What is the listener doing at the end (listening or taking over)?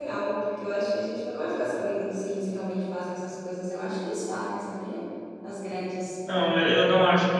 taking over